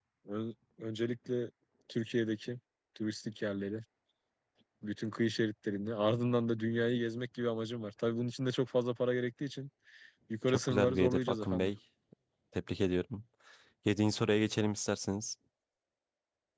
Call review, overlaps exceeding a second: present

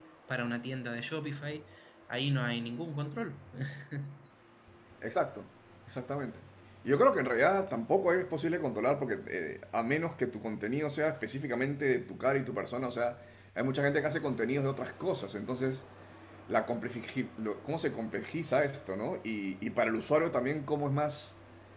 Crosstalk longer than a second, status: none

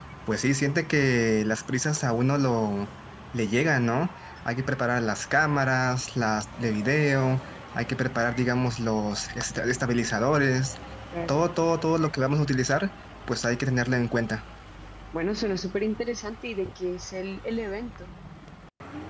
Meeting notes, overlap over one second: none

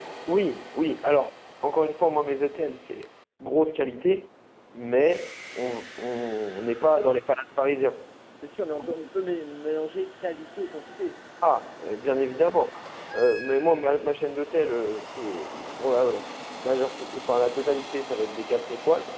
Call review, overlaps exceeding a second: none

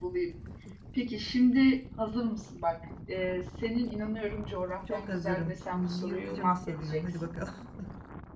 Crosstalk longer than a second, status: present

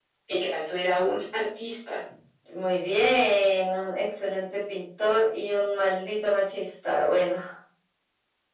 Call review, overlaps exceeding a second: none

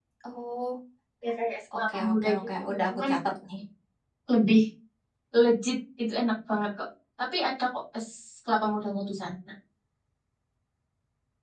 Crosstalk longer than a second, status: present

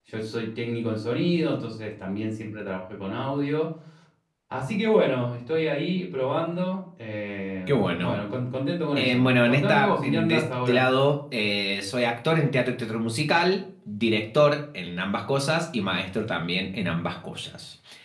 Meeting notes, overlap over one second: present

